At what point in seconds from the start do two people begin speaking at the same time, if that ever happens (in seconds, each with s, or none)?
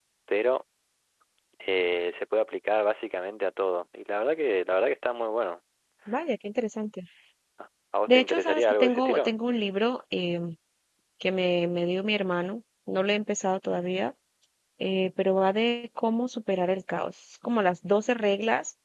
8.1 s